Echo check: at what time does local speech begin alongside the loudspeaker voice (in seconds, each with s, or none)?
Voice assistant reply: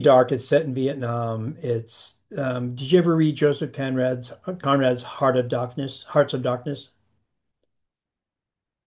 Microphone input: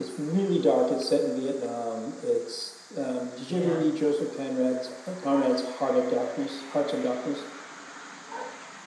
3.5 s